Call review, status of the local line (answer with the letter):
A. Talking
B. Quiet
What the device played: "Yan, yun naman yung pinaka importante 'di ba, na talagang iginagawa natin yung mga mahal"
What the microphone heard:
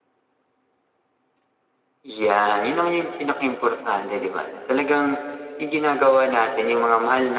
B